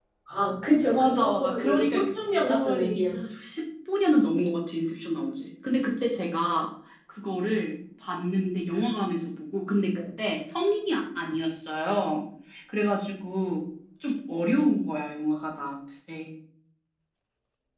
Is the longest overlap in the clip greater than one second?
Yes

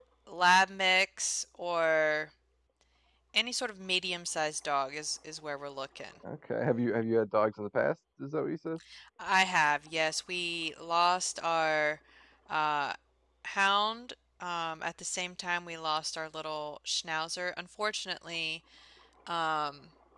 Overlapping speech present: No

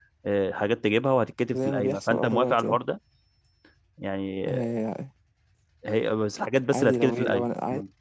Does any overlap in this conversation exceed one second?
Yes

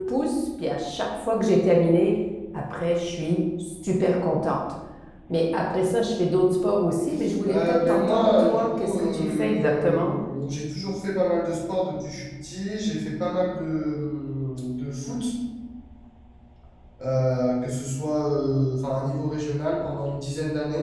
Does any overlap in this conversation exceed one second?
Yes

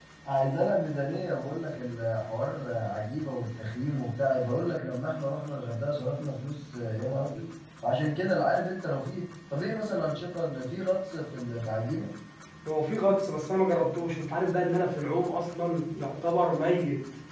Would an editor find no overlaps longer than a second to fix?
Yes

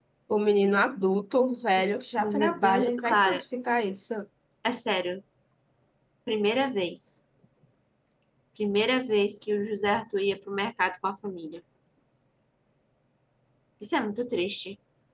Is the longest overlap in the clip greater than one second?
Yes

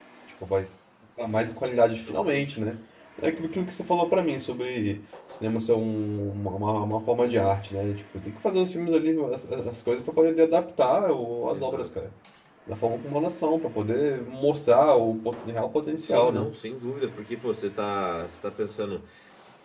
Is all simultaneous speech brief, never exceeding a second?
Yes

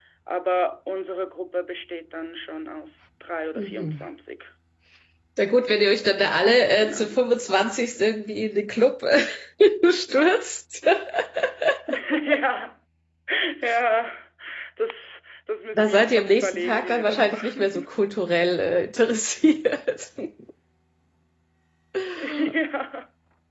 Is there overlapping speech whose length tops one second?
Yes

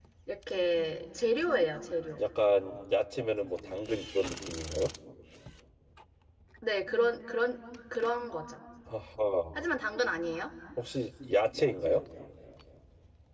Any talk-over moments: No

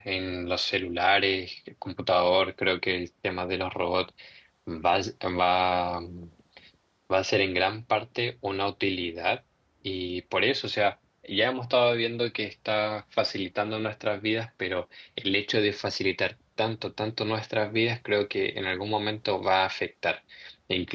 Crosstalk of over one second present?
No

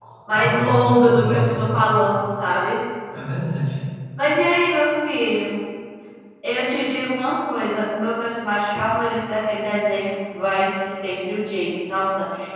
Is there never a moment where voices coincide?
No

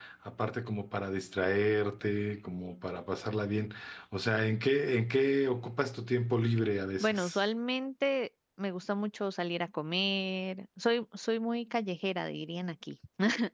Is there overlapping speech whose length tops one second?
No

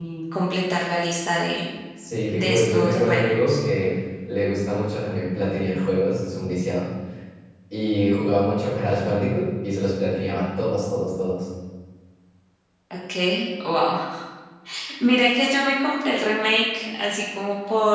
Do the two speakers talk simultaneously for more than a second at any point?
Yes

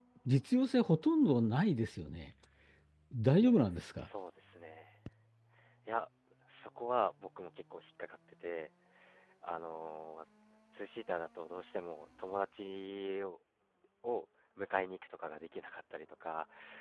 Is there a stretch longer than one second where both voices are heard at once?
No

